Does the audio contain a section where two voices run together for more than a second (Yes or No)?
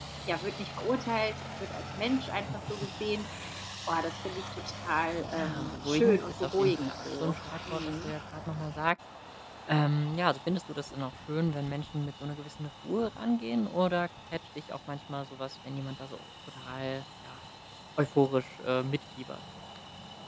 Yes